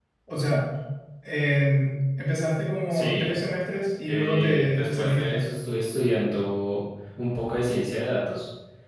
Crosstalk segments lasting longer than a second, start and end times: 4.1-5.5

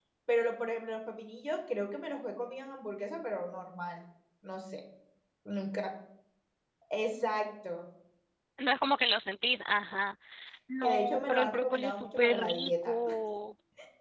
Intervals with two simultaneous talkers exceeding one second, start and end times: 10.8-13.0

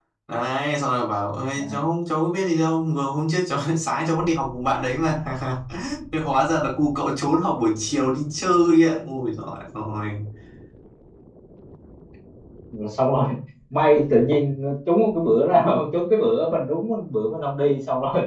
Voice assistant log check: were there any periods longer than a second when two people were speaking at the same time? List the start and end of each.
none

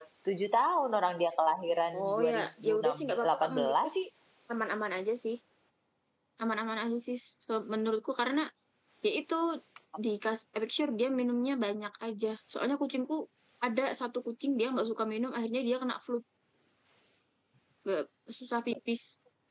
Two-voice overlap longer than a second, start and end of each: 2.0-3.9

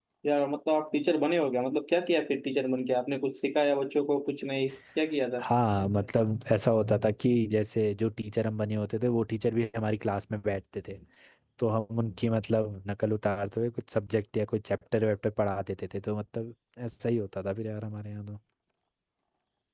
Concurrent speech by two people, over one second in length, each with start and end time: none

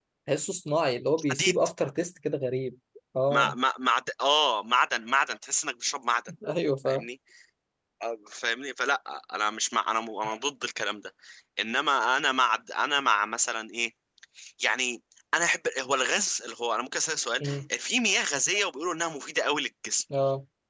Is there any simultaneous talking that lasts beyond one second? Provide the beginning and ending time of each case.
none

